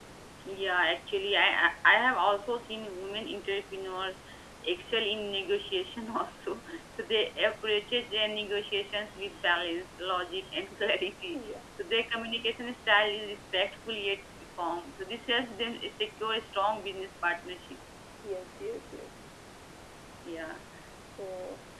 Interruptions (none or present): none